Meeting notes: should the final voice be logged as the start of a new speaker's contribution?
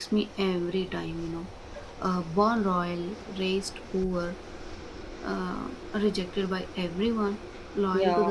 No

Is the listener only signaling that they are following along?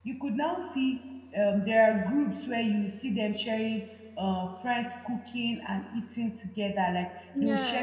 Yes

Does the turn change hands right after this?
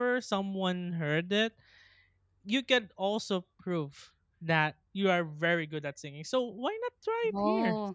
No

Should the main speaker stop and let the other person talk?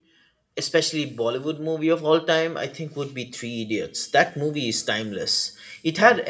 No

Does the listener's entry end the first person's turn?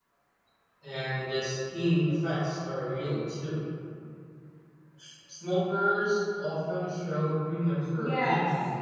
Yes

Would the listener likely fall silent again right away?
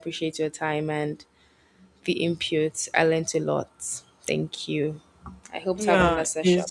No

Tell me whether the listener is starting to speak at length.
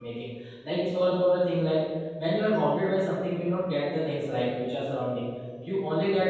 No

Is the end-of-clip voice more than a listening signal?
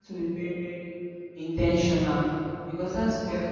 No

